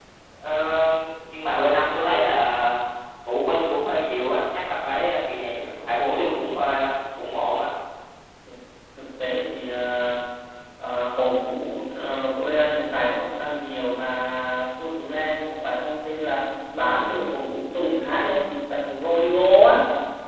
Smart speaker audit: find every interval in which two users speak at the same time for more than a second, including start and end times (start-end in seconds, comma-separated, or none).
none